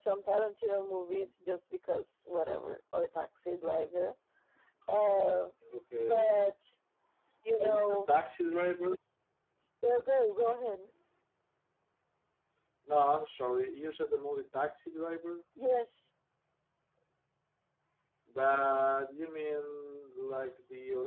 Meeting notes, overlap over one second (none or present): none